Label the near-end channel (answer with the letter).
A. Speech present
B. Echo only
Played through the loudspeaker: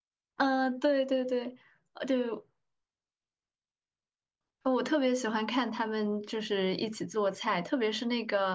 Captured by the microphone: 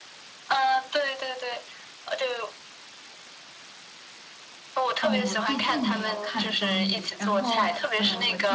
A